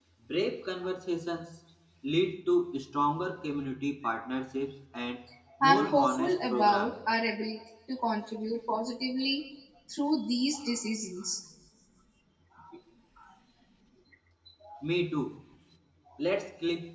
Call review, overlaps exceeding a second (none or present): present